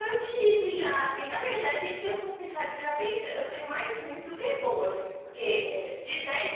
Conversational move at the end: listening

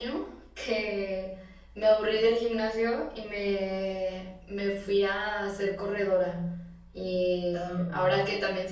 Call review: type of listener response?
listening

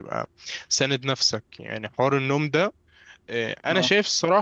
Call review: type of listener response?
listening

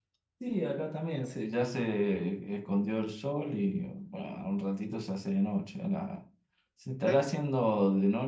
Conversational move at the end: listening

